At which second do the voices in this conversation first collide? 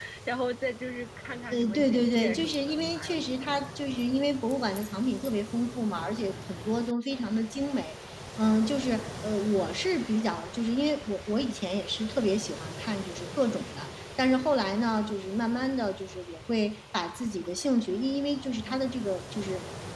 1.5 s

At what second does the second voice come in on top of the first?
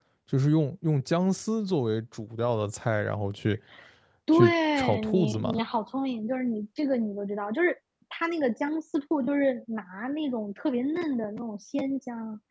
4.3 s

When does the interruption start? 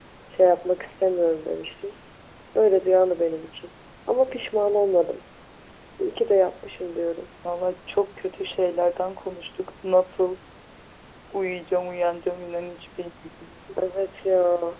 none

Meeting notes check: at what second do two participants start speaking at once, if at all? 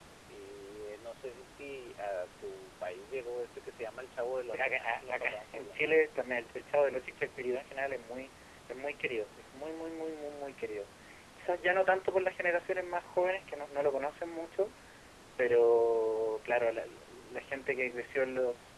4.5 s

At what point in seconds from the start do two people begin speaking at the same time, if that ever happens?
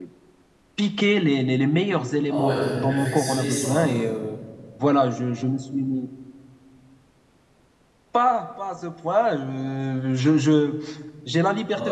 2.3 s

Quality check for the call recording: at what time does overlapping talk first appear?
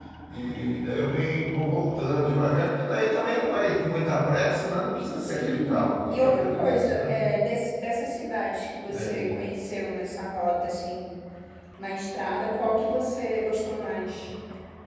5.2 s

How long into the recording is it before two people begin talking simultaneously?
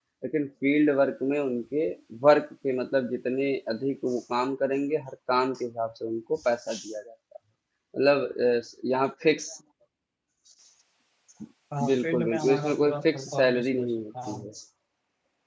11.9 s

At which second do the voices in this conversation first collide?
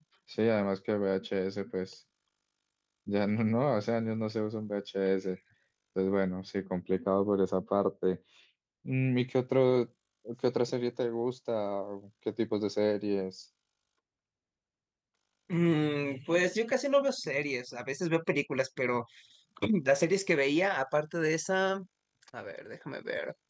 none

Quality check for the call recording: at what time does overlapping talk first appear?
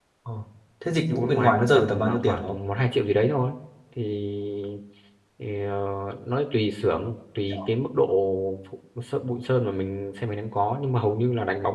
1.1 s

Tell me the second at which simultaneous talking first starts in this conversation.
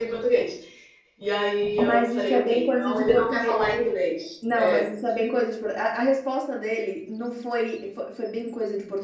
1.8 s

